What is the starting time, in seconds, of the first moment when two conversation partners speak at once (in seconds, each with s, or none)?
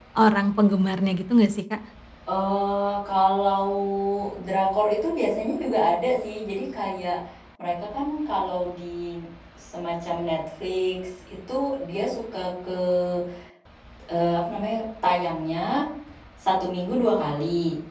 none